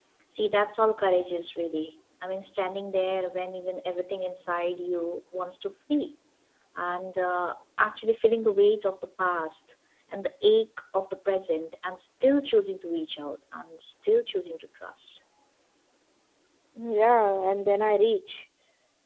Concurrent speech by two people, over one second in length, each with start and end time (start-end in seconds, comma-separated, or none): none